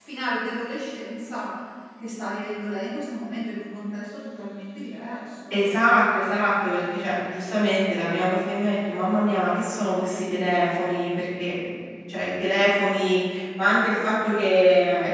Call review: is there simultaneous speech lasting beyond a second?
No

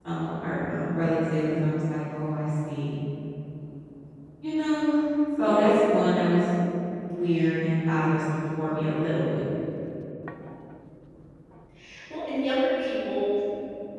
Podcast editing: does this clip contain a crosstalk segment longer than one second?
No

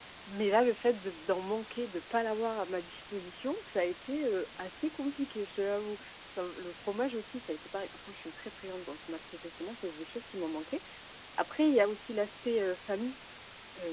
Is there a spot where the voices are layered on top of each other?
No

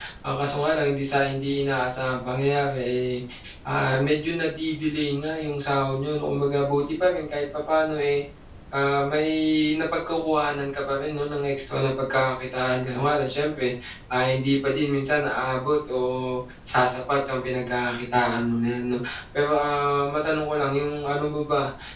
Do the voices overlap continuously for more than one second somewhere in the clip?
No

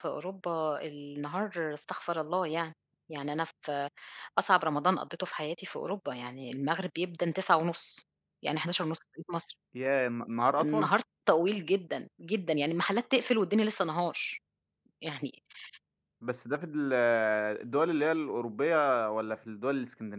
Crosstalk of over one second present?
No

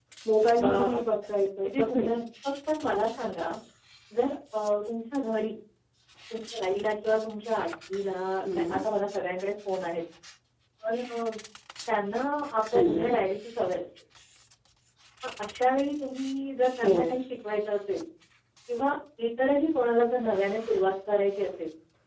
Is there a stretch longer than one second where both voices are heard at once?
No

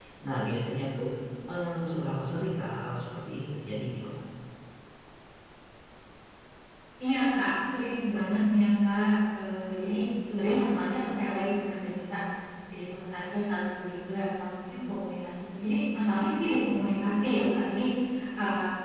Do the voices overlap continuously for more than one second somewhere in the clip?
No

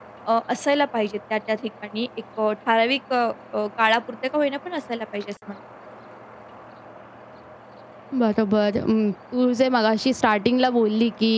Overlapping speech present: No

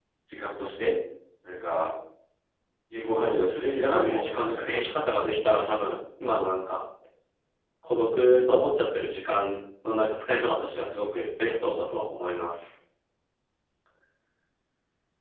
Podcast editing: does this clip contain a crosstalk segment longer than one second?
Yes, from 3.0 s

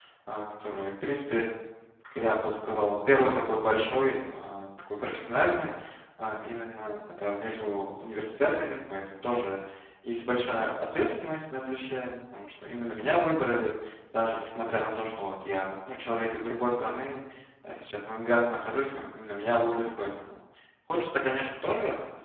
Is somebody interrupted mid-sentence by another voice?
No

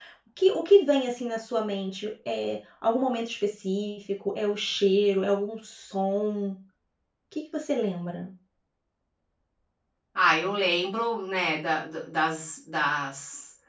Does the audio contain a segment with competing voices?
No

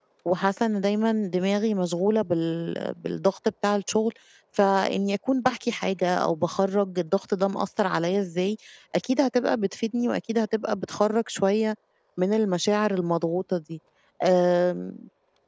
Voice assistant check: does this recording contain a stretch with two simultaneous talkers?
No

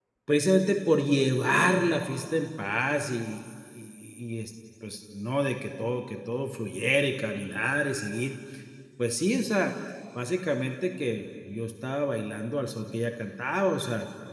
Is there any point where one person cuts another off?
No

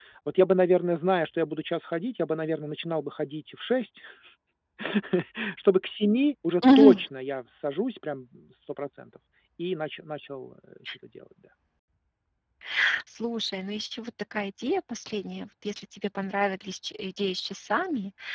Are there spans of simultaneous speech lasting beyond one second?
No

